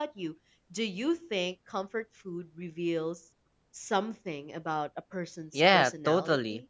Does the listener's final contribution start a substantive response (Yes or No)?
Yes